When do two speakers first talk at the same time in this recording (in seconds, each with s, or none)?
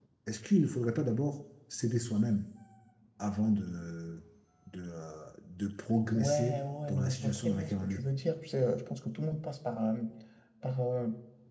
6.1 s